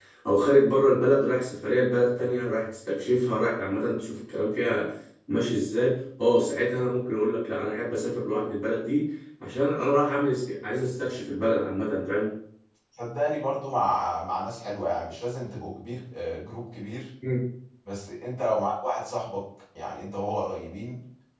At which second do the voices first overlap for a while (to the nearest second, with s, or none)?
none